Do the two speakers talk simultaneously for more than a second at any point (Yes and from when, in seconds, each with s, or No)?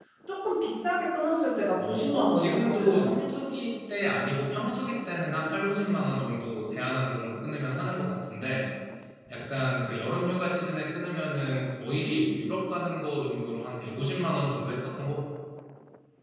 Yes, from 1.8 s